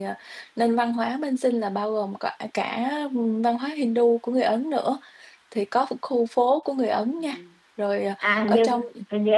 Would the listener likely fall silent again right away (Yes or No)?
No